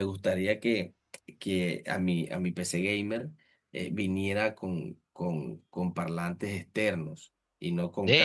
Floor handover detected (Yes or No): Yes